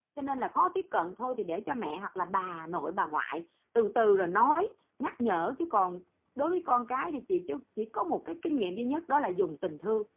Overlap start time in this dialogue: none

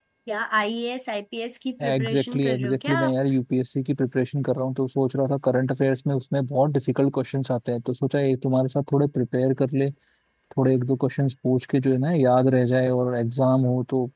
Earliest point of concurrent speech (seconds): 2 s

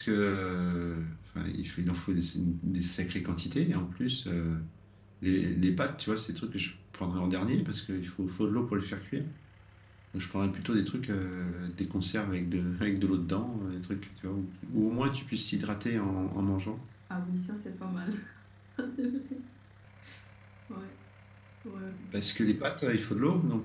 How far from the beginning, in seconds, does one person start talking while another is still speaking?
none

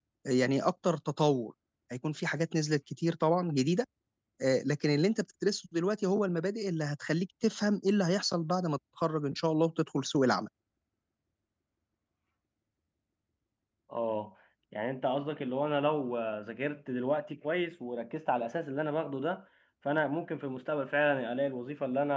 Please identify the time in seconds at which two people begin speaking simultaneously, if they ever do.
none

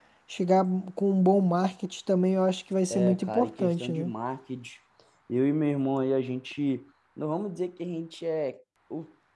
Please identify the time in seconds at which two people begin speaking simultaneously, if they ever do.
3 s

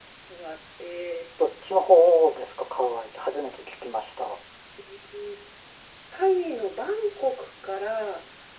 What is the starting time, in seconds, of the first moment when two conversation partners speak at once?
none

